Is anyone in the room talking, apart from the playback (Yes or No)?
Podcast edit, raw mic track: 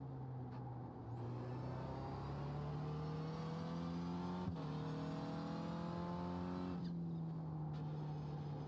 No